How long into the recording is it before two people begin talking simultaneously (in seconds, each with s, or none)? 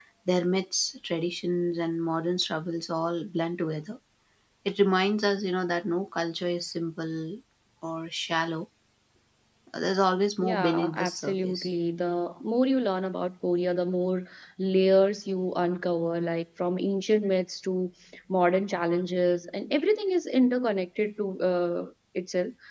10.4 s